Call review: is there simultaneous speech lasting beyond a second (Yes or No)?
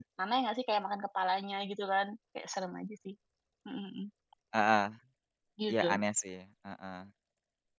No